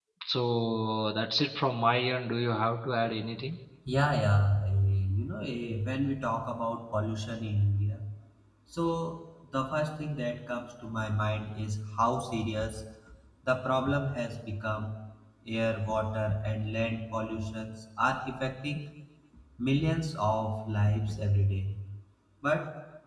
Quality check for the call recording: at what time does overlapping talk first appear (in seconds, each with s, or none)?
none